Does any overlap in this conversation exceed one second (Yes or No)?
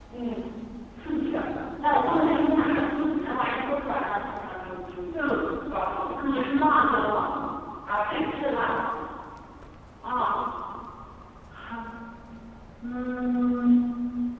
No